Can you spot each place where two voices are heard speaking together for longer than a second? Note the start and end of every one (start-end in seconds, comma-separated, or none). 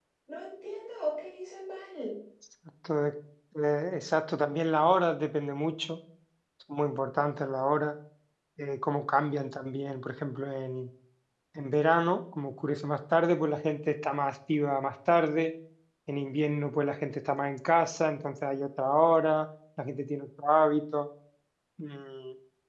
none